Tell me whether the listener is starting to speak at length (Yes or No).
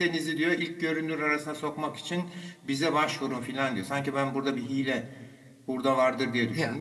Yes